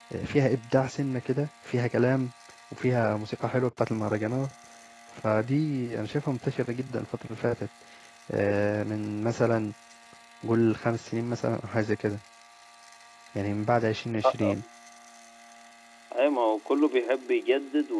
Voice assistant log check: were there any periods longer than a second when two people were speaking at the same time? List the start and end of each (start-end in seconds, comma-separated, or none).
none